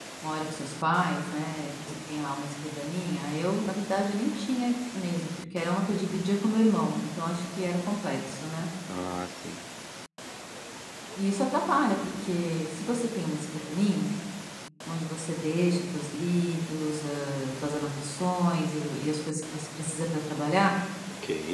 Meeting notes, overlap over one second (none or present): none